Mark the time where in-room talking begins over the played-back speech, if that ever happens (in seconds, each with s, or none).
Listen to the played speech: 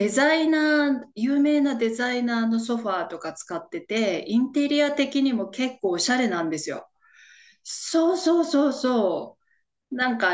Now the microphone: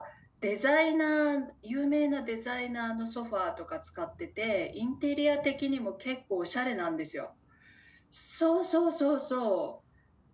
none